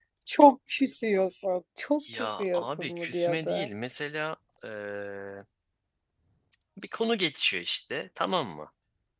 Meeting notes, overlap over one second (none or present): present